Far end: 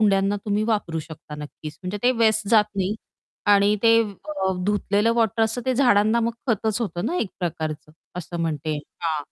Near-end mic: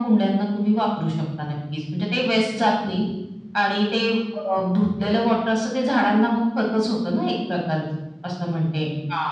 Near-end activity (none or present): none